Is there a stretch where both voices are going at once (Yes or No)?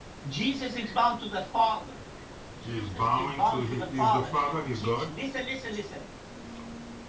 Yes